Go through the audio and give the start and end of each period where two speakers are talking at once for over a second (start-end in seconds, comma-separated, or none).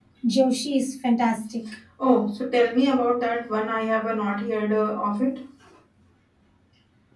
none